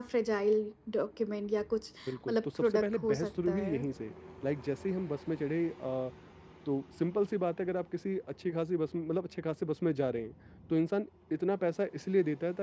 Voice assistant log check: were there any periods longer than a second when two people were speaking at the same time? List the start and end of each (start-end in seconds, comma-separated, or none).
2.3-3.8